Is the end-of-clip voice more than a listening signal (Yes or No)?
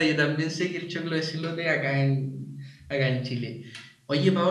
No